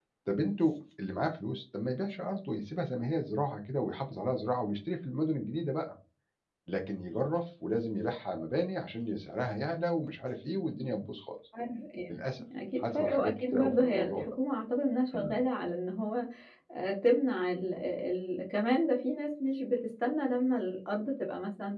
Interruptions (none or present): present